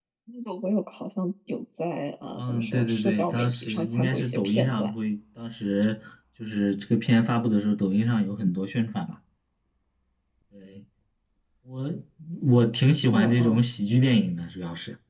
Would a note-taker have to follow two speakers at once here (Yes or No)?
Yes